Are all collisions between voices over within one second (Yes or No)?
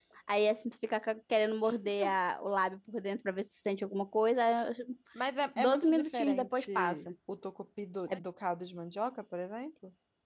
No